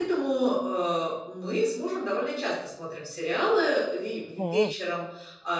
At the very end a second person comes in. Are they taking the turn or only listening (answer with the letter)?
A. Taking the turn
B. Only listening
B